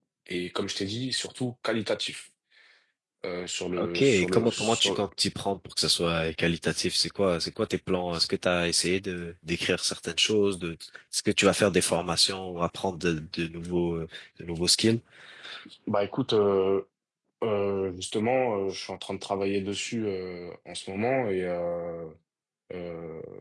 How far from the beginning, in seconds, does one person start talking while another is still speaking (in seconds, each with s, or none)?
3.8 s